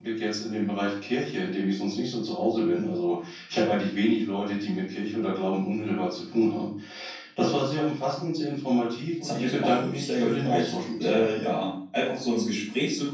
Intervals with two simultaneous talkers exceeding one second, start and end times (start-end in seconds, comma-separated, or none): 9.2-11.2